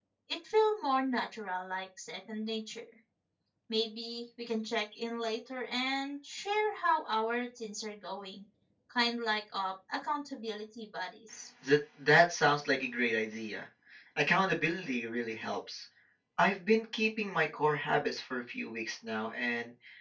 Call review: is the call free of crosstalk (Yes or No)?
Yes